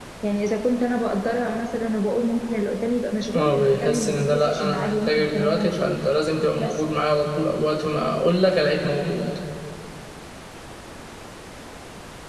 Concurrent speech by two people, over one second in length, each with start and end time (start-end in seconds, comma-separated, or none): 3.3-6.0